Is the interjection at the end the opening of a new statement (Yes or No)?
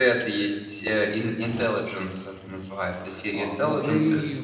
Yes